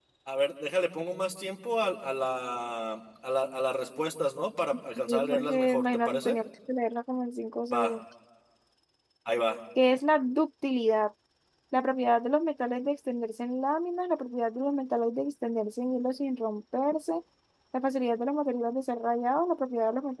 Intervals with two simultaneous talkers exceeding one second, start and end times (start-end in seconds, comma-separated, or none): 5.0-6.4